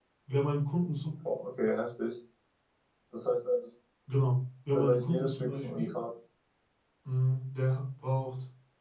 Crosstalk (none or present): present